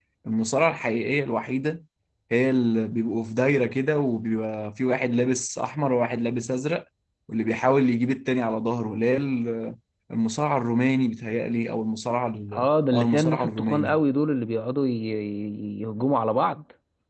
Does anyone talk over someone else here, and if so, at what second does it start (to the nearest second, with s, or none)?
13 s